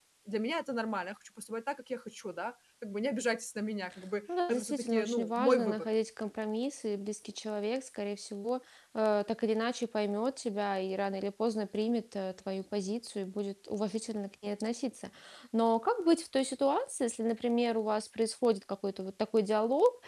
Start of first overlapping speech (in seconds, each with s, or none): 4.3 s